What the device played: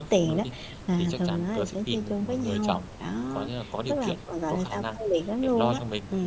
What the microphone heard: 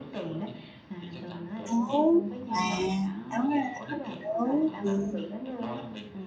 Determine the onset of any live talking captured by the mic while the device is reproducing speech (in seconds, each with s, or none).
1.7 s